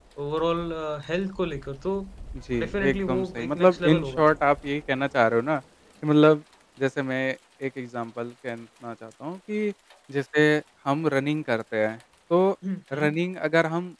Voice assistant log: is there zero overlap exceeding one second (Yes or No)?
No